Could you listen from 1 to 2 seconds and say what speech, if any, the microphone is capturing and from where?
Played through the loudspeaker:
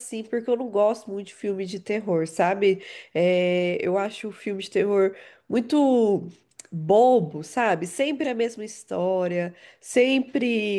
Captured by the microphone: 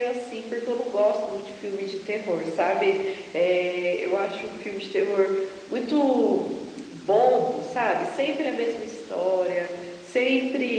echo only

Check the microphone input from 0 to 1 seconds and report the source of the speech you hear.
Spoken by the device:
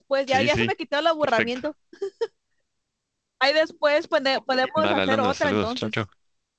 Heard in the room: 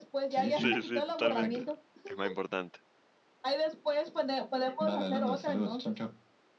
both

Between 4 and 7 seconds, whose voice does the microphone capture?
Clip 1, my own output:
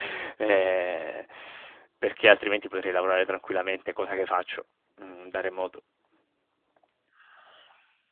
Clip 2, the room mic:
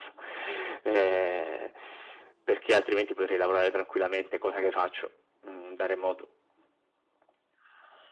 echo only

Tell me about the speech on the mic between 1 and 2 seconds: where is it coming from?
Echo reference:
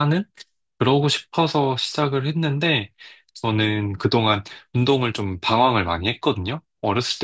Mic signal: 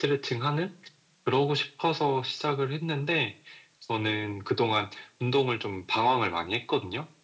echo only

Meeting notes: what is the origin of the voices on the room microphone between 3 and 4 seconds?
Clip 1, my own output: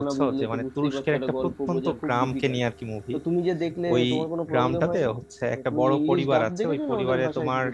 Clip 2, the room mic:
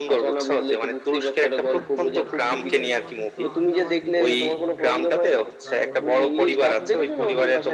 both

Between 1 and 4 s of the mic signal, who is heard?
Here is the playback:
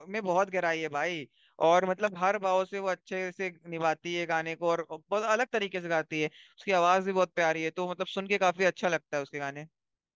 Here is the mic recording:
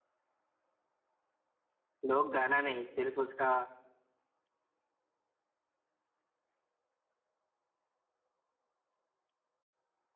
user only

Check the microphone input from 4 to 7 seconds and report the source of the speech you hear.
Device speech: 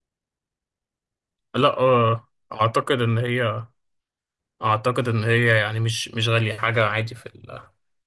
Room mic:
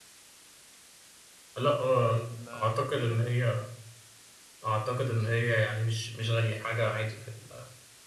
echo only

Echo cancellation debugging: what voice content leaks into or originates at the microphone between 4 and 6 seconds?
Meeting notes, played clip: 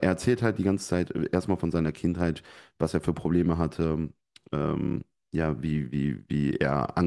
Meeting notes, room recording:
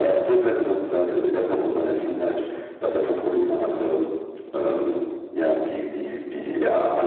echo only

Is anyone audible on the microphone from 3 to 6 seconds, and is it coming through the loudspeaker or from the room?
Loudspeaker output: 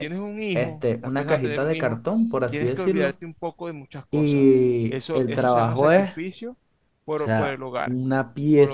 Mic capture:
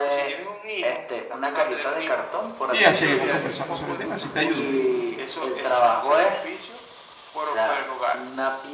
both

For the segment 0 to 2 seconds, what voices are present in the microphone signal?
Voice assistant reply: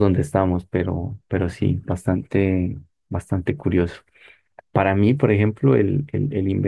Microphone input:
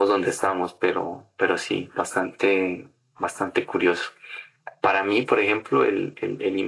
echo only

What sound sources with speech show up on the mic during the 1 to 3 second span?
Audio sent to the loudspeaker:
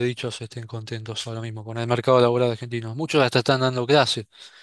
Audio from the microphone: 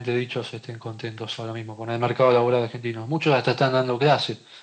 echo only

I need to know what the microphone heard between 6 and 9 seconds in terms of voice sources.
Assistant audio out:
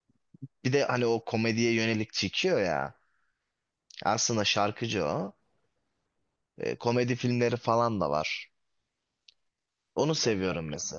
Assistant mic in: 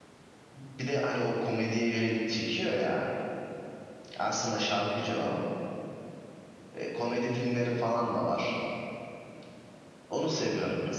echo only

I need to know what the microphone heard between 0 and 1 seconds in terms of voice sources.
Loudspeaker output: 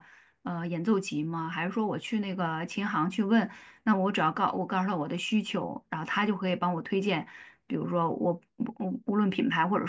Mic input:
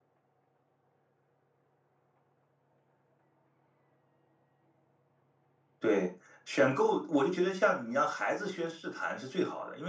neither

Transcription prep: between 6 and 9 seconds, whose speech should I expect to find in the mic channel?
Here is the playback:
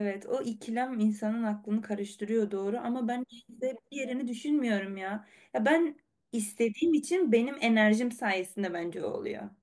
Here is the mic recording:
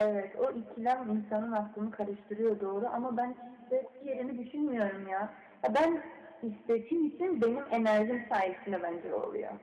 echo only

